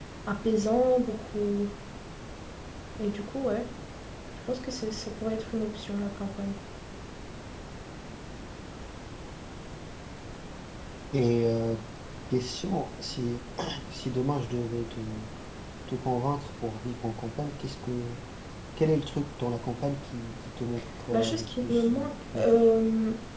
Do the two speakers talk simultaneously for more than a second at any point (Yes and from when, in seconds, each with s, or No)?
Yes, from 21.1 s